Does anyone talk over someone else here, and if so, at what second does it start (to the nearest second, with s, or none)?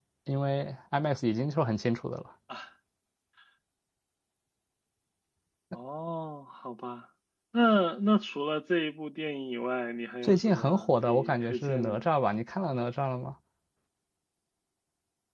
10 s